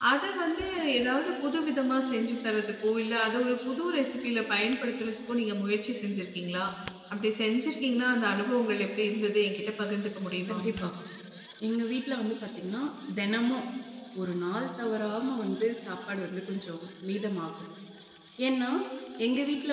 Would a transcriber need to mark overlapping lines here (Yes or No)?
No